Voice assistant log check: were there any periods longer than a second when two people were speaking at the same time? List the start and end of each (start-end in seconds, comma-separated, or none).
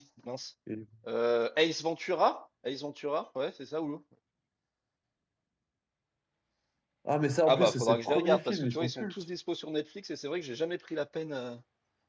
7.5-9.1